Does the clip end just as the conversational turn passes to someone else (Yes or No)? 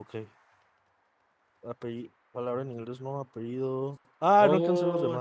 Yes